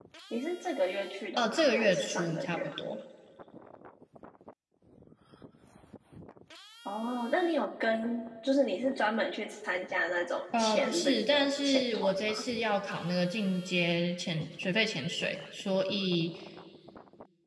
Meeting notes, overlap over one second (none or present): present